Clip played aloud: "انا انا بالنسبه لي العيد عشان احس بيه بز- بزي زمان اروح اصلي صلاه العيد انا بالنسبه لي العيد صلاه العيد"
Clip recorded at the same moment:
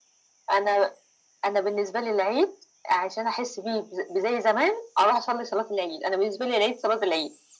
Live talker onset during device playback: none

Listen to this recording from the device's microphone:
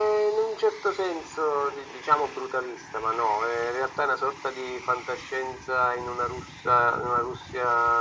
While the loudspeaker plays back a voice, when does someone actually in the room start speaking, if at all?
none

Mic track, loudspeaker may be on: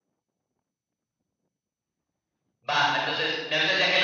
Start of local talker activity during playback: 2.7 s

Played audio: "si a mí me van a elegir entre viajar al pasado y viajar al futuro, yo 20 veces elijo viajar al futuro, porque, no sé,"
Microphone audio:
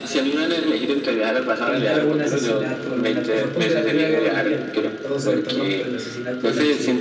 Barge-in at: 1.6 s

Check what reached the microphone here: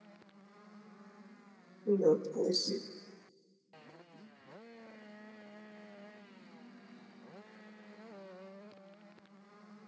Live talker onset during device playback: 1.9 s

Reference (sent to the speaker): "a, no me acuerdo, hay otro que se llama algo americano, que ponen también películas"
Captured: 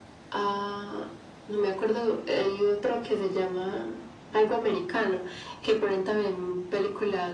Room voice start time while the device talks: none

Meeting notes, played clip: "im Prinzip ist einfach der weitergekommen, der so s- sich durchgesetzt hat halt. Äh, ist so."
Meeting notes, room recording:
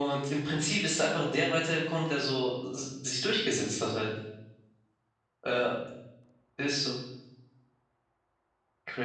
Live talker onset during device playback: none

